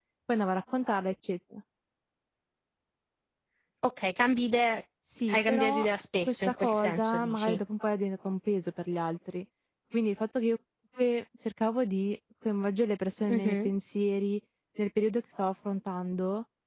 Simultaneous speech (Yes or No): Yes